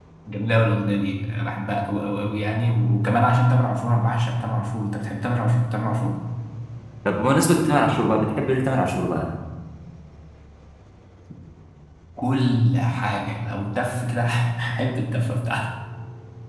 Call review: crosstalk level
none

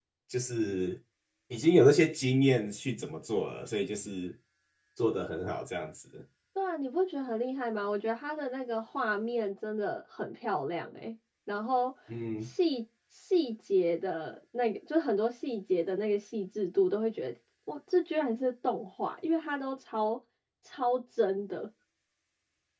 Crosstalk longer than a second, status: none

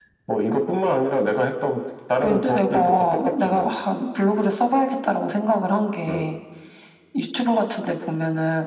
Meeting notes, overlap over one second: present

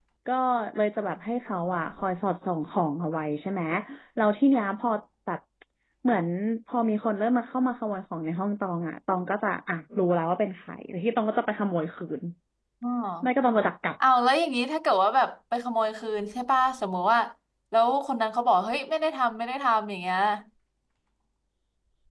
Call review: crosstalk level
none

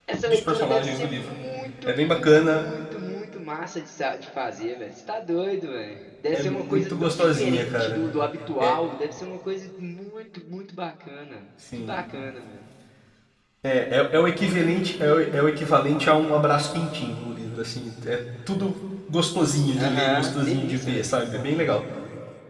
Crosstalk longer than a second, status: present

